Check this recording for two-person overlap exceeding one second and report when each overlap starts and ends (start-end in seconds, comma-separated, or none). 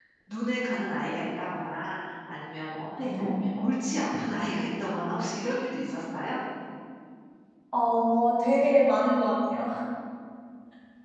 none